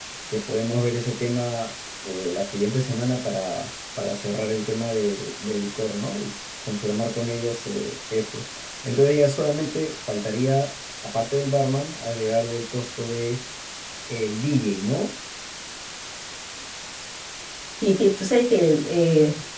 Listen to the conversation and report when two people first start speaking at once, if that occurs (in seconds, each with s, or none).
none